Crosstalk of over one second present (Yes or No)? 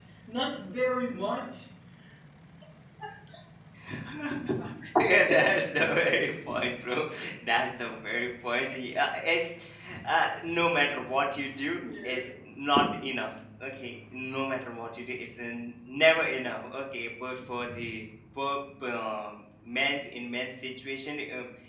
No